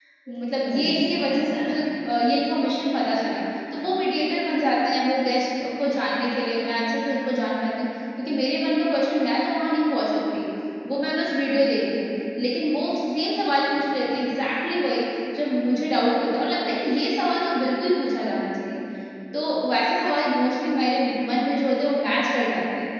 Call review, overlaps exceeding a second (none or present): present